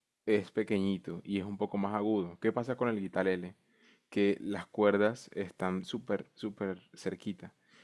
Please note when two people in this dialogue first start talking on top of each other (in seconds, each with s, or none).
none